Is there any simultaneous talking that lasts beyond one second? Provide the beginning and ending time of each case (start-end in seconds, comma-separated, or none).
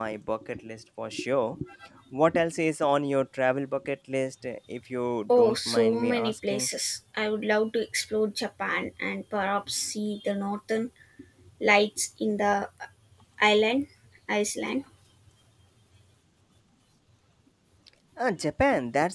5.4-6.7